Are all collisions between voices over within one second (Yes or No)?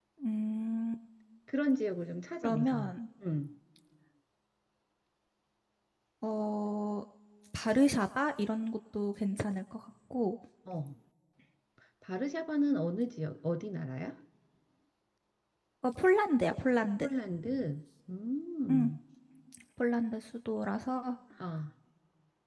Yes